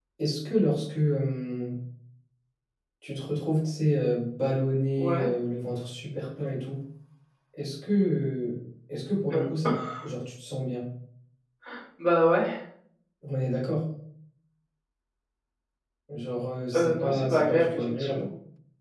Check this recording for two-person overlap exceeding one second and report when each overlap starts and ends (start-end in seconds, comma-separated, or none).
16.7-18.2